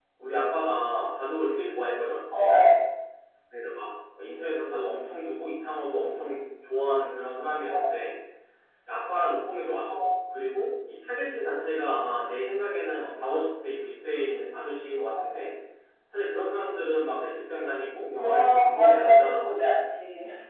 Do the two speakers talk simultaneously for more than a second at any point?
Yes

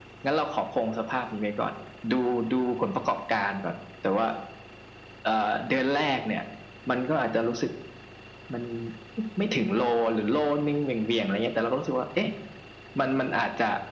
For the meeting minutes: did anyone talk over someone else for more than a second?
No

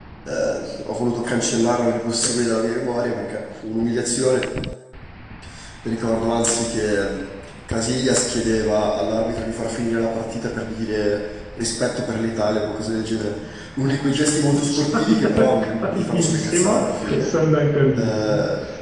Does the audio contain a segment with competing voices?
Yes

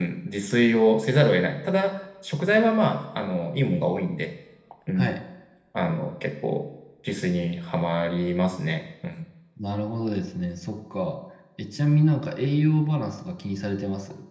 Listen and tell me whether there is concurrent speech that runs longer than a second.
No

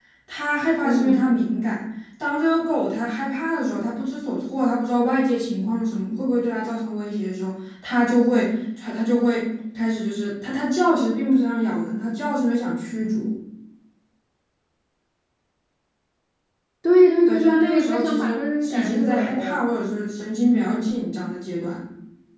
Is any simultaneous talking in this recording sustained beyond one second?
Yes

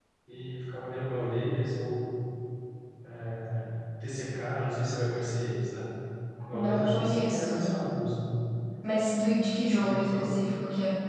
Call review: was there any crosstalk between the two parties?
Yes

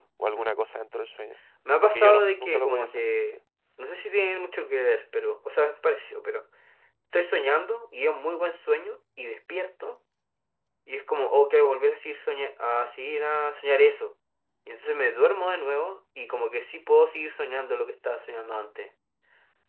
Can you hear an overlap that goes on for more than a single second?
Yes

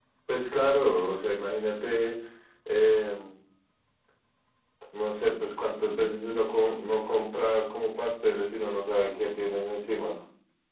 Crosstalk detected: No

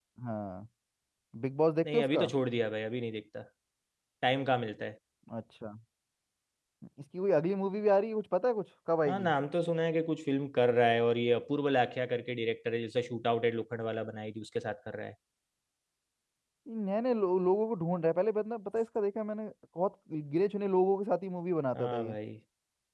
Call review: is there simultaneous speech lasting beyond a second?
No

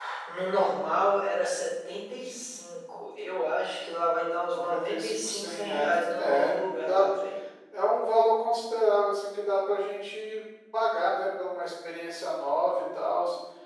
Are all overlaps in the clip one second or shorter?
No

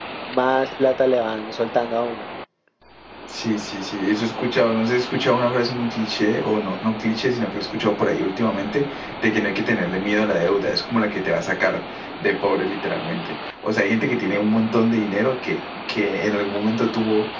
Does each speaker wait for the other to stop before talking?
Yes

